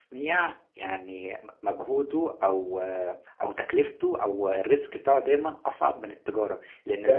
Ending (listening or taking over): listening